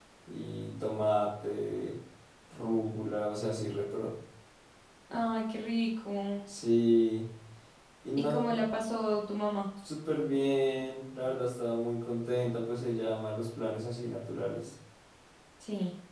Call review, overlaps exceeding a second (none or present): none